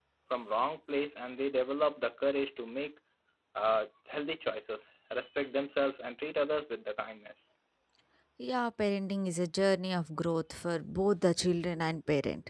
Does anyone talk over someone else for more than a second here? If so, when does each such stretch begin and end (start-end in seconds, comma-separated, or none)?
none